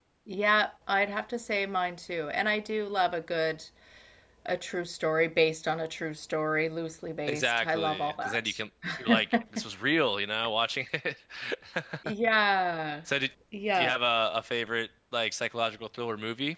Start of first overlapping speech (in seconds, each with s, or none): 7.3 s